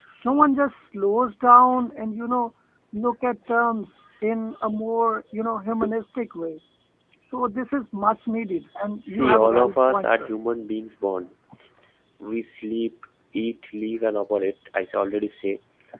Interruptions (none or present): present